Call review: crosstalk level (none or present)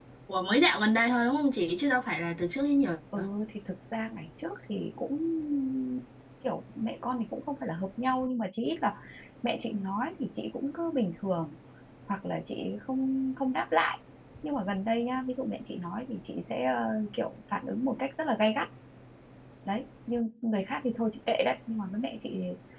none